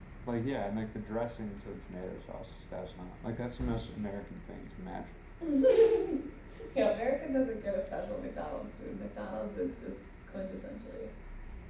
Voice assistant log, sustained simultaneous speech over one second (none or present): none